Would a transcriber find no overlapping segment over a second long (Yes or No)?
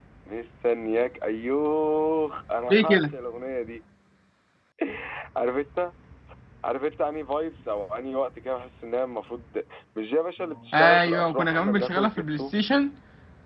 No